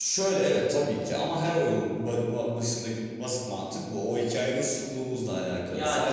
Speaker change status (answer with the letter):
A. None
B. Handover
A